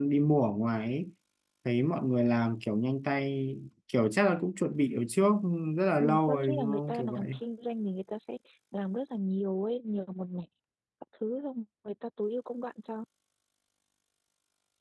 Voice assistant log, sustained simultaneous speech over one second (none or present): present